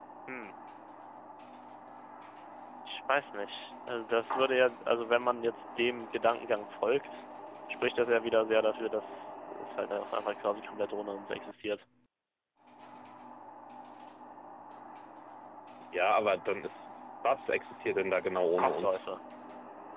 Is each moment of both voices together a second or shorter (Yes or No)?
Yes